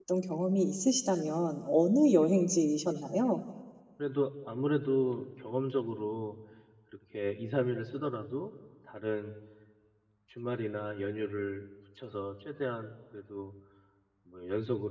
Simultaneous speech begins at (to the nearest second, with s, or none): none